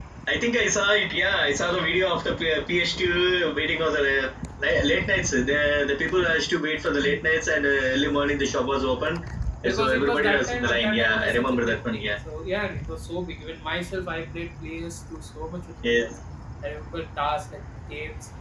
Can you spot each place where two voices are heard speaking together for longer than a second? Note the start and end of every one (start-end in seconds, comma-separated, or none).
9.6-12.1